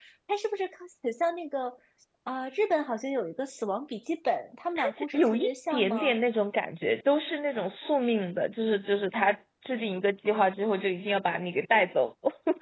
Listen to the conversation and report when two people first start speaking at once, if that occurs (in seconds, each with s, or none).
4.8 s